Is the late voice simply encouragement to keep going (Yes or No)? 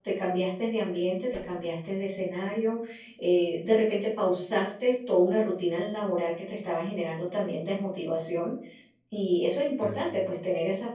Yes